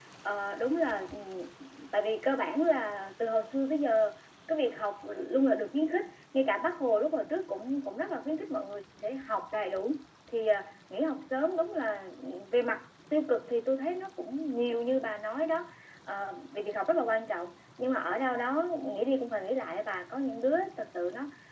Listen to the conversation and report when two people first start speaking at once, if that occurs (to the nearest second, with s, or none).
none